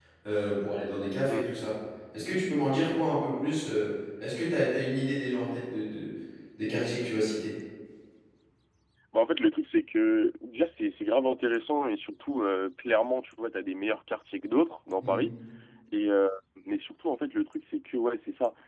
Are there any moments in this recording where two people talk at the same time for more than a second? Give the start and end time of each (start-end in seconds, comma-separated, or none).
none